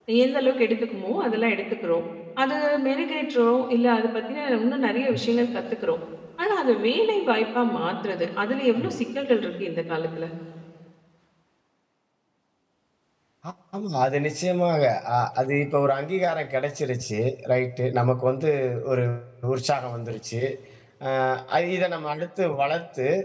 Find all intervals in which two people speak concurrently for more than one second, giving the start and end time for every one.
none

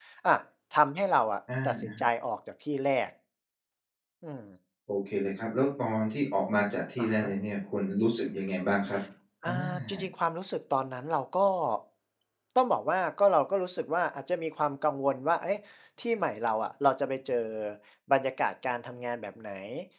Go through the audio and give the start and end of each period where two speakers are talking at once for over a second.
none

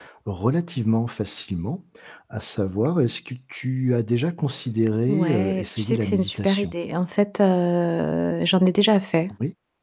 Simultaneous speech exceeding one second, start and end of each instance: 5.1-6.7

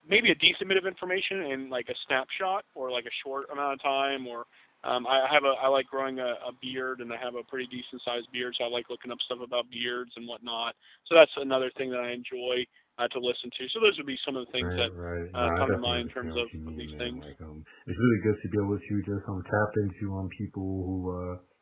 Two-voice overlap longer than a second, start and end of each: 15.3-17.3

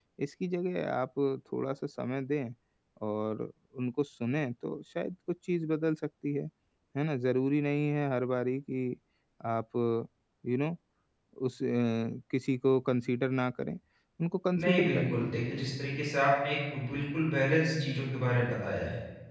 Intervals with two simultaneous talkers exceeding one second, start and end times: none

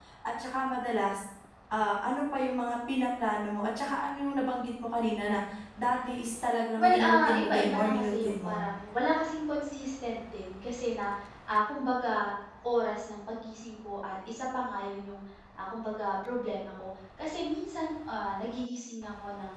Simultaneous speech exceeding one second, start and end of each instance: 6.8-8.6

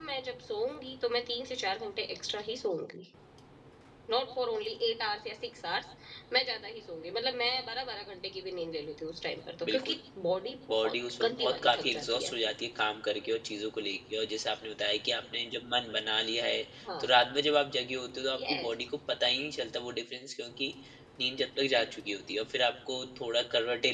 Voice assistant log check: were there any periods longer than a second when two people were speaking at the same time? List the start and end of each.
10.7-12.3

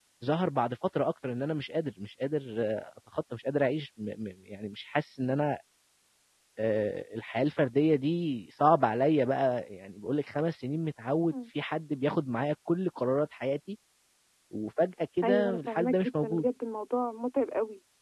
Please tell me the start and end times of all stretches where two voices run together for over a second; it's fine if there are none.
15.2-16.4

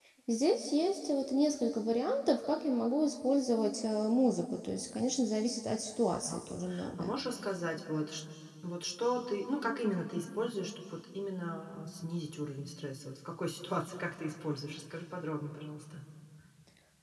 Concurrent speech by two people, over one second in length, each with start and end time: none

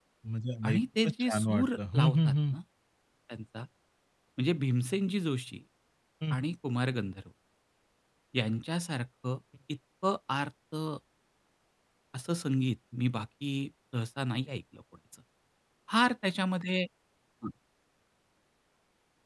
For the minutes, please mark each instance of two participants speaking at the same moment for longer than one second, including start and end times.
0.7-2.6

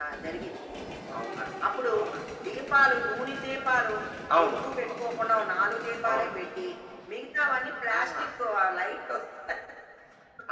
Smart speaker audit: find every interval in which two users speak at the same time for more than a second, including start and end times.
none

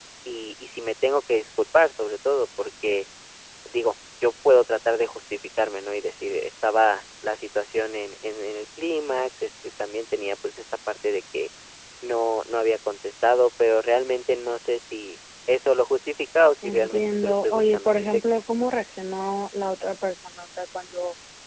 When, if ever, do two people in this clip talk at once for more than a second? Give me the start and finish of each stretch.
16.6-18.2

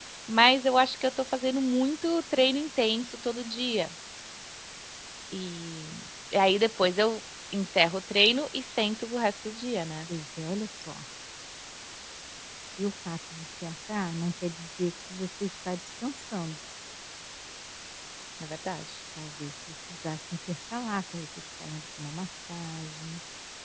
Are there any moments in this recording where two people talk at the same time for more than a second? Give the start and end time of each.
none

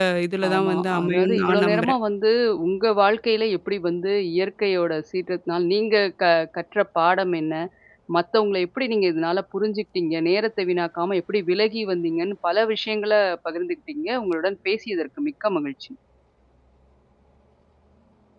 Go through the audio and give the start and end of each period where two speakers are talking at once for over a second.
0.5-1.9

